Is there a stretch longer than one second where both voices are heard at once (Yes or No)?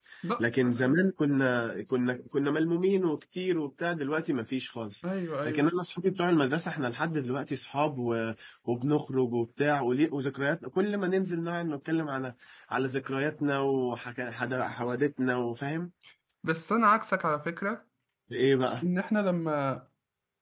No